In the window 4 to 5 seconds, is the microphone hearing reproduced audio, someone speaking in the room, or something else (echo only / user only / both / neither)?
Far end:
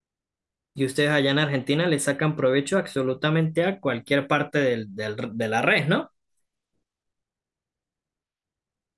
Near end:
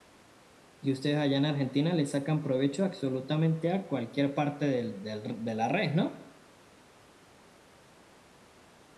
echo only